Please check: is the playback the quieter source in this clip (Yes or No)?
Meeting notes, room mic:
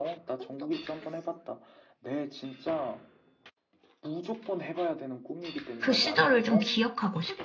Yes